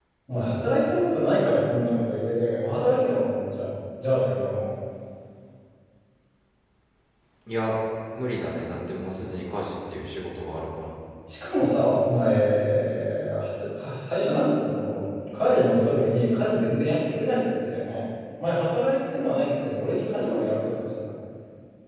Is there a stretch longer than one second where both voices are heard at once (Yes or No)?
No